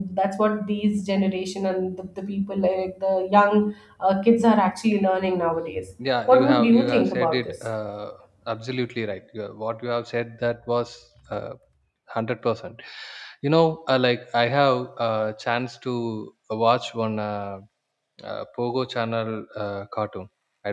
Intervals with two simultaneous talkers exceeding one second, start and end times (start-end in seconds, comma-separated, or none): 6.3-7.5